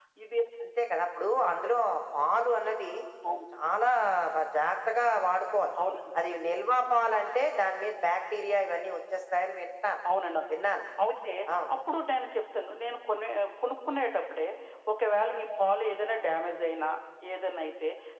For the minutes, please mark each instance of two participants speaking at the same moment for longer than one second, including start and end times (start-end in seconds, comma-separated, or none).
none